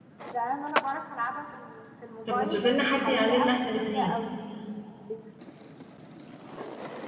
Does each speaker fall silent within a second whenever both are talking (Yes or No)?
No